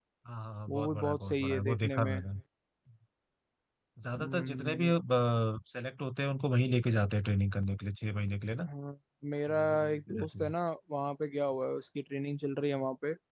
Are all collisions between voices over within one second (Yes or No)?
No